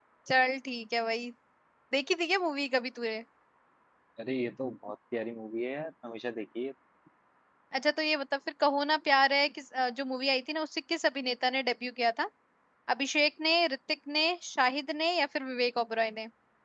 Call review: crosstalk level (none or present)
none